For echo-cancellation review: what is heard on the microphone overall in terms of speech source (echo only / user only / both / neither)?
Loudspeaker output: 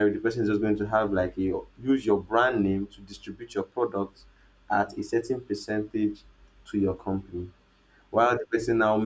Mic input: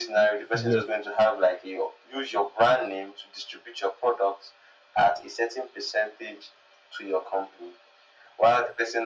both